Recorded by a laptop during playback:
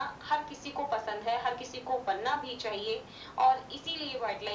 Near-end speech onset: none

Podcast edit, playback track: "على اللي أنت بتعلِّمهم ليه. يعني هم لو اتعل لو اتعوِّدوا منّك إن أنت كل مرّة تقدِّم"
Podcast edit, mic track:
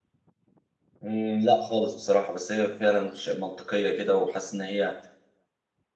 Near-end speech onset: 1.0 s

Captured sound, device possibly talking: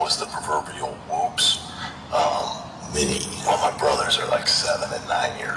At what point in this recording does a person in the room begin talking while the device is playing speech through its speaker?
2.9 s

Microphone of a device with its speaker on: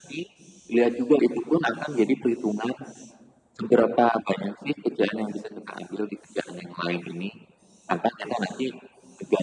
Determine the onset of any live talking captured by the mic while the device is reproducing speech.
none

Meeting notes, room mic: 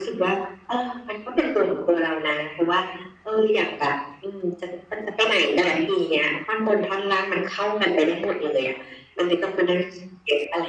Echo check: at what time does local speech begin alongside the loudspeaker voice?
none

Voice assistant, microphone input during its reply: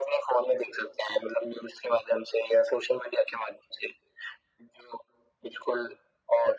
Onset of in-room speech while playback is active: none

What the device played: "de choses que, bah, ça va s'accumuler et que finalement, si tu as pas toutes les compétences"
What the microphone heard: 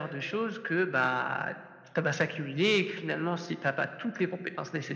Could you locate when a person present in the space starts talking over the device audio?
none

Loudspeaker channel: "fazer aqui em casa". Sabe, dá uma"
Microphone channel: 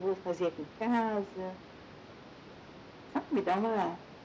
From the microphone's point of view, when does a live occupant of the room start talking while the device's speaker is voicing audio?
none

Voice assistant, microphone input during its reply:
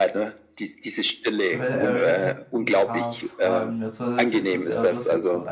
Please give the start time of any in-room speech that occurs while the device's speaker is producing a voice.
1.5 s

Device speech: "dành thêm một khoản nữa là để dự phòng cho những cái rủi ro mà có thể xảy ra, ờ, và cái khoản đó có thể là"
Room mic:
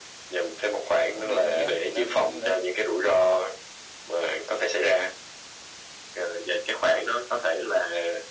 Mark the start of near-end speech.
1.1 s

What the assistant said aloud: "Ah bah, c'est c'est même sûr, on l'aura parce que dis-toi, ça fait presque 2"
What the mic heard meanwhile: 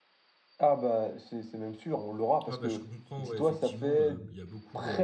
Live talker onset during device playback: 2.4 s

